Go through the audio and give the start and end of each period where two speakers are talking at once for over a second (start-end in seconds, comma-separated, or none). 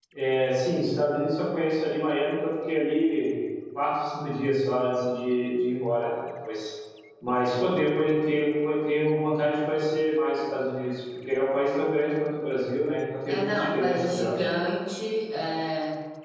13.3-14.5